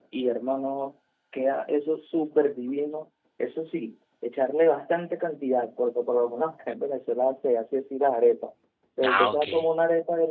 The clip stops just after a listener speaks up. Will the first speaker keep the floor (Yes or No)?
Yes